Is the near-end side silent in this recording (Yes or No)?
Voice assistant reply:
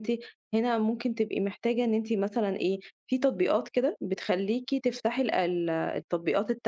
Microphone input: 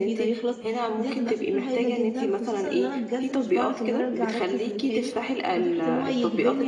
No